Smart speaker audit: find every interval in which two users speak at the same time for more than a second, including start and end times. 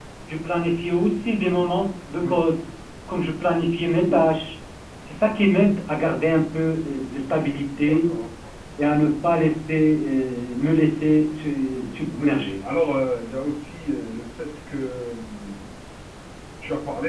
none

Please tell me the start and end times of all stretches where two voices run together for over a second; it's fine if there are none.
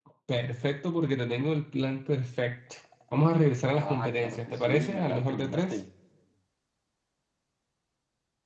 3.7-5.8

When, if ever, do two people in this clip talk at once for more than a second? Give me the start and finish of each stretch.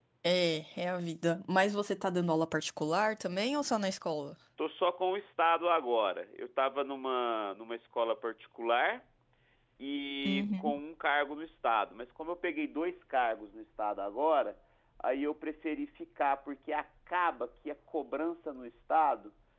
none

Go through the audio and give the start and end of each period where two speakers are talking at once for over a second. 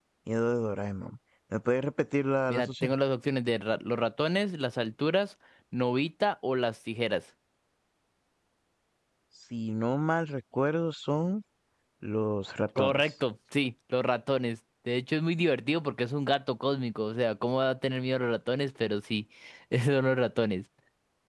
none

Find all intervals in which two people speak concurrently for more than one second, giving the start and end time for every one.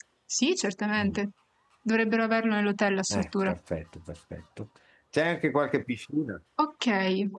none

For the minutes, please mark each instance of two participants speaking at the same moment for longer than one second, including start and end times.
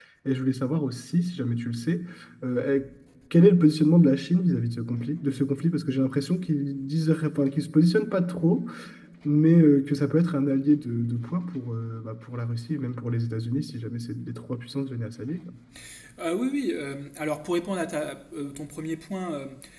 none

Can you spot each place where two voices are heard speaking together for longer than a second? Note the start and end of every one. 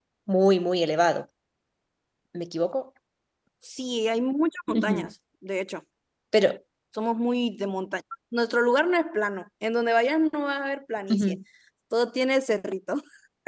none

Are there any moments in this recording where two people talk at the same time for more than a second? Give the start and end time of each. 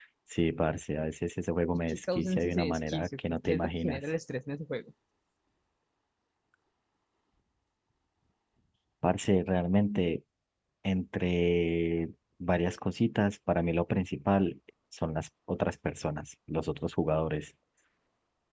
1.9-4.0

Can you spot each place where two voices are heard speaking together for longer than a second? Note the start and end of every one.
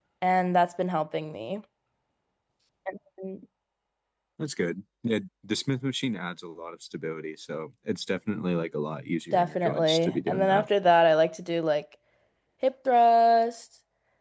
9.3-10.7

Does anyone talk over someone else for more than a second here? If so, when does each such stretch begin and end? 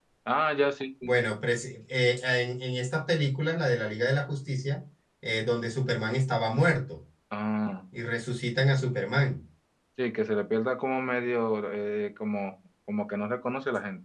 none

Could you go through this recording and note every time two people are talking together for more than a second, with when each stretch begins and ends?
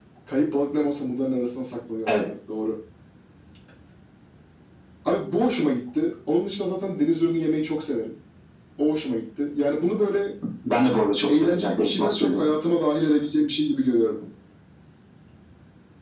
11.3-12.5

